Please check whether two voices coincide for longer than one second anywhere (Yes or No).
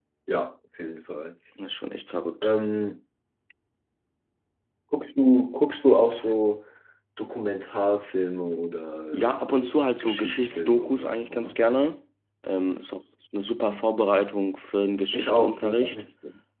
Yes